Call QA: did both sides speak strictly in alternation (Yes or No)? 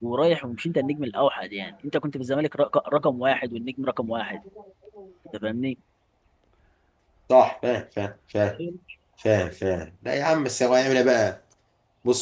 Yes